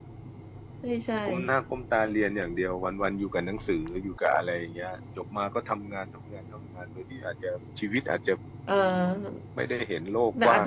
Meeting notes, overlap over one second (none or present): none